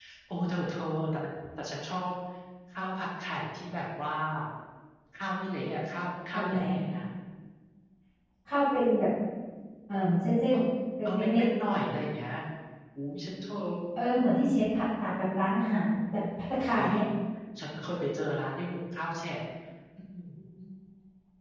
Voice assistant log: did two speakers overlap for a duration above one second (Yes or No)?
No